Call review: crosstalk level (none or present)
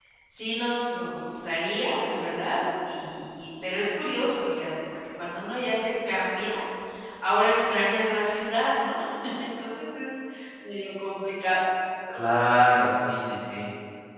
none